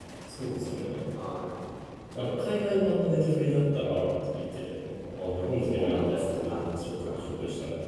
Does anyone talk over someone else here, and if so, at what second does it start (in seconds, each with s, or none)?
5.6 s